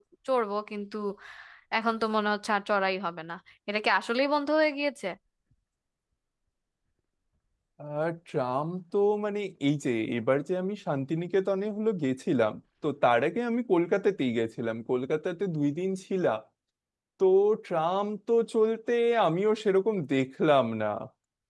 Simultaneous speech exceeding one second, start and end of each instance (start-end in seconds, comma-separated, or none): none